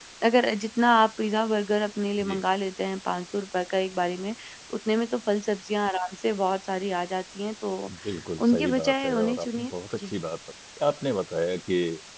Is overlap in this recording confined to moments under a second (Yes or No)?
No